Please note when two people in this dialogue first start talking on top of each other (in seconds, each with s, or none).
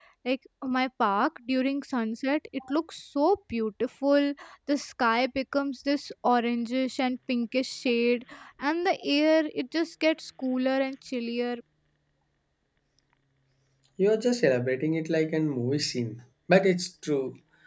none